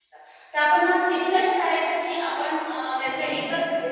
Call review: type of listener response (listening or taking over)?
listening